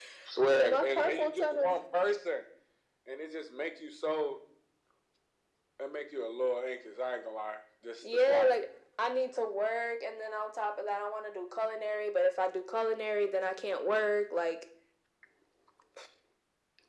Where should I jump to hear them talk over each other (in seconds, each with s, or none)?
0.6 s